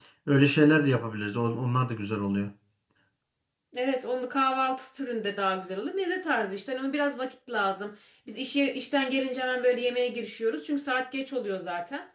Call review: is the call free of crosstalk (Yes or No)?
Yes